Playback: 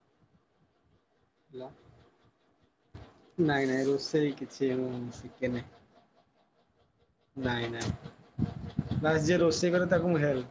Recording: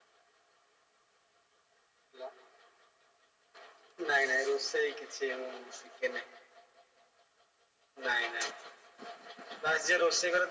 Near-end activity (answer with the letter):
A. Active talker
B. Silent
B